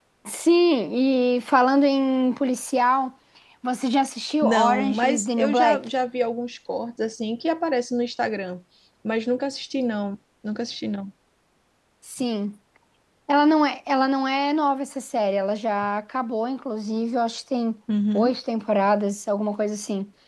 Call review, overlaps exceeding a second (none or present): present